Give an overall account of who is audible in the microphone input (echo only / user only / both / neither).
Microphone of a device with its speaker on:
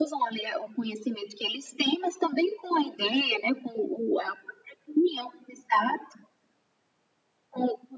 echo only